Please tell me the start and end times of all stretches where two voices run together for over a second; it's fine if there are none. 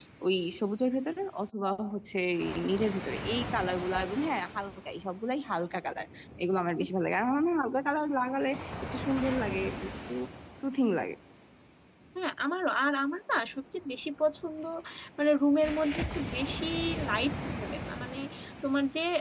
none

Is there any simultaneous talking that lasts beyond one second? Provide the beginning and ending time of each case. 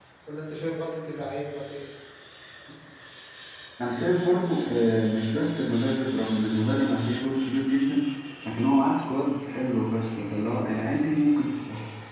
none

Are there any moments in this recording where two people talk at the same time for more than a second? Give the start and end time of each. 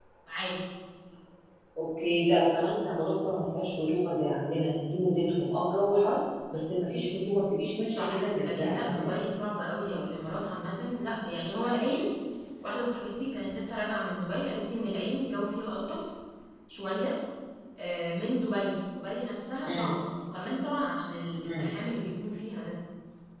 7.9-9.1

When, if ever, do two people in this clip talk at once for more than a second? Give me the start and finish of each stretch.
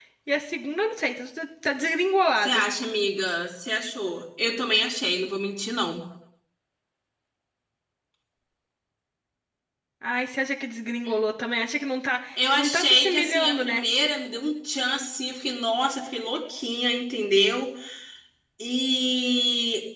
12.4-13.8

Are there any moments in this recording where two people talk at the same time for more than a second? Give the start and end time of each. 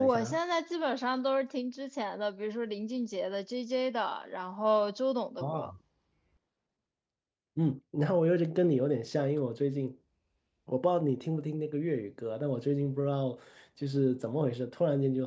none

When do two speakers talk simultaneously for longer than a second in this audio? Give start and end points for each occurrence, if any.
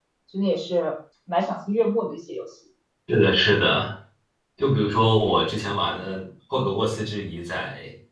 none

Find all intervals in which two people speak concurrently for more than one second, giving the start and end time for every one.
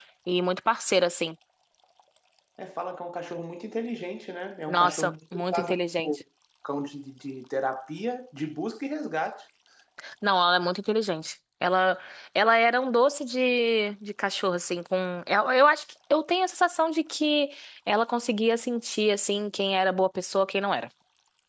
4.7-6.2

